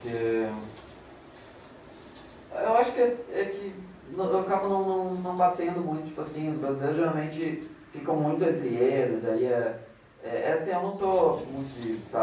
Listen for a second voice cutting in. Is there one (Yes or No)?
No